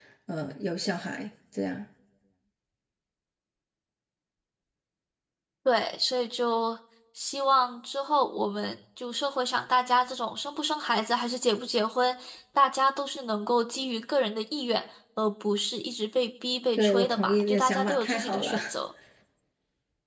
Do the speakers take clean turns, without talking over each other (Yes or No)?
No